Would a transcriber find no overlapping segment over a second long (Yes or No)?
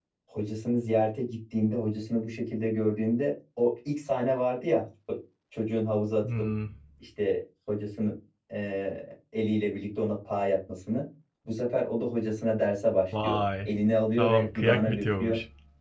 No